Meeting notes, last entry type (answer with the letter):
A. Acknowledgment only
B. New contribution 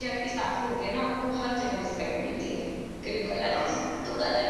A